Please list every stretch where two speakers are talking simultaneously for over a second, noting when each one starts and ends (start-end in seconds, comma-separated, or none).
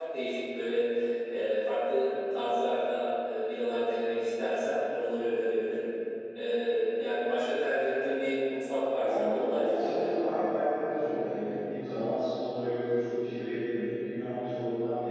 8.9-10.1